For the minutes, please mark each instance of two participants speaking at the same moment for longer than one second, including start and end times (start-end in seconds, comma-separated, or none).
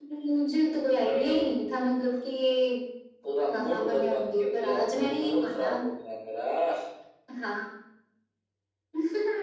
3.5-5.8